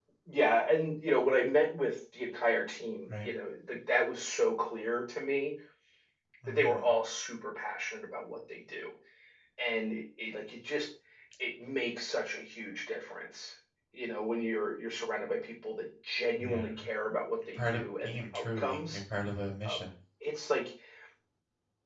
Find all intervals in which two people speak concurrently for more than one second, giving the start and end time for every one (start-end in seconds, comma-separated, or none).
17.6-19.0